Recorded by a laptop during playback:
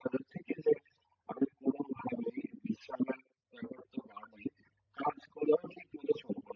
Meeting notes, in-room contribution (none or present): none